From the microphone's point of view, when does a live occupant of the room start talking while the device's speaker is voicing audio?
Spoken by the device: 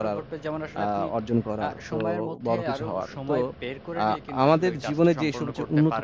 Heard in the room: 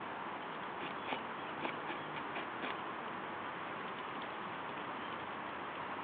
none

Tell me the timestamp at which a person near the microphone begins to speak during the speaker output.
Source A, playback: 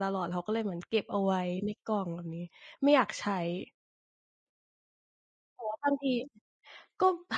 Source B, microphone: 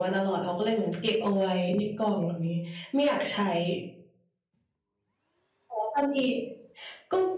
none

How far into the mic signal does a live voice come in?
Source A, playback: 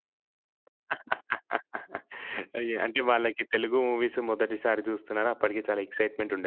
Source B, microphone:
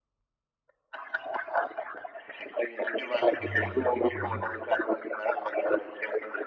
3.4 s

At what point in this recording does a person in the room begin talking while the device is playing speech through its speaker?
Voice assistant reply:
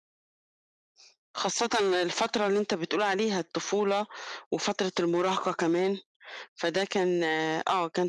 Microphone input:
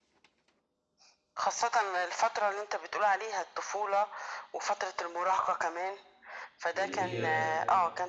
6.8 s

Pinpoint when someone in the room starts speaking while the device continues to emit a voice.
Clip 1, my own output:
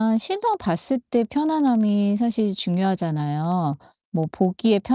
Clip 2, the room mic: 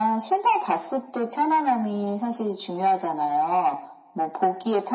none

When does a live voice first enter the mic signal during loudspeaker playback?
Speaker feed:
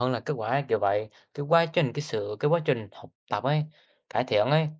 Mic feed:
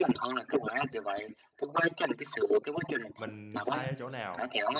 3.2 s

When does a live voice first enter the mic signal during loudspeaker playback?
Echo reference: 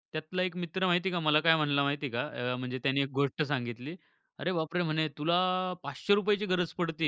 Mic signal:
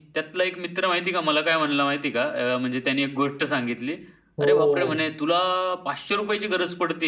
4.4 s

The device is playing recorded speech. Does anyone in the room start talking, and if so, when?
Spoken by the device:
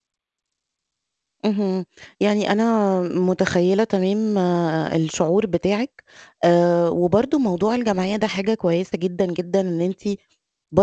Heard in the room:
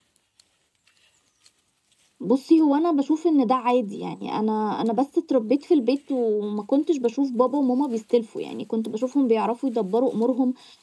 2.2 s

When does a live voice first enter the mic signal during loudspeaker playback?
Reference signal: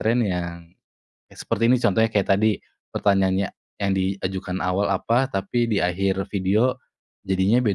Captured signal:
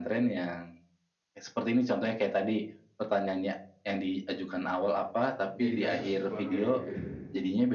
5.5 s

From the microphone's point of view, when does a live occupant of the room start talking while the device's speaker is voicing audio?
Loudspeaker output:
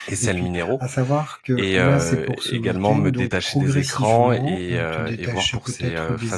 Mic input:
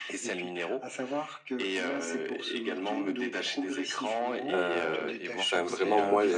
4.5 s

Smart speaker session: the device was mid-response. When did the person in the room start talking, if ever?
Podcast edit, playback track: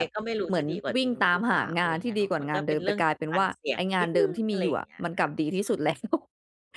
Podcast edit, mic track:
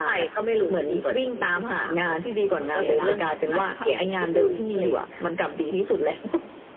2.8 s

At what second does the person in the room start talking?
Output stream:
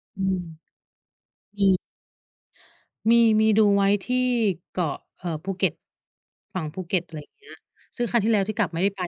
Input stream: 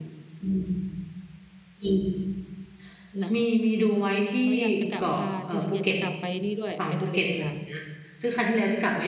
3.2 s

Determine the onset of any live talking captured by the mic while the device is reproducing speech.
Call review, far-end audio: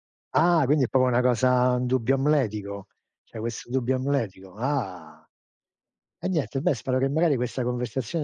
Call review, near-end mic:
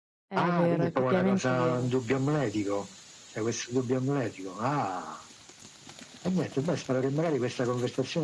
0.3 s

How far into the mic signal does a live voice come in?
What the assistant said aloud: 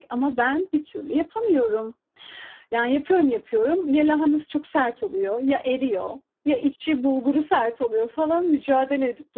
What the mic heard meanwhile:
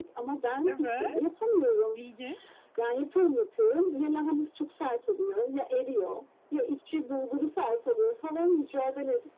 0.6 s

